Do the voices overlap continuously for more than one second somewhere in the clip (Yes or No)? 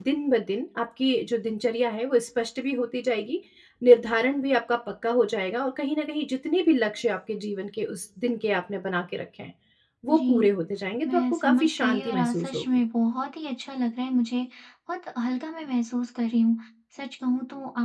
Yes